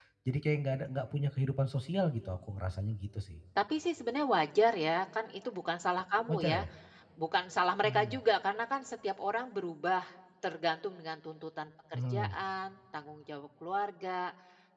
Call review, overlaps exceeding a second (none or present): none